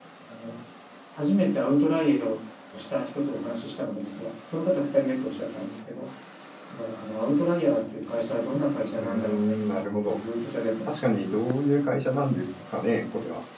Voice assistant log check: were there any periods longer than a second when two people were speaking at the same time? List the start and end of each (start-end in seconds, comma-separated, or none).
9.0-10.2